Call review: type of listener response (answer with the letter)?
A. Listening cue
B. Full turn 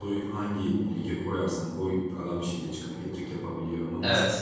B